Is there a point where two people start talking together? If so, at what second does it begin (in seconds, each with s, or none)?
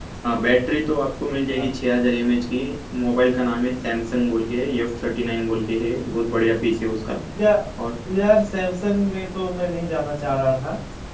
none